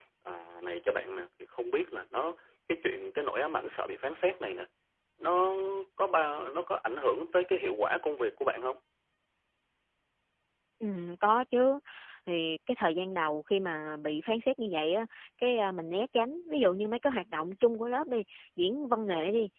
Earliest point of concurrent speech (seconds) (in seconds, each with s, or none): none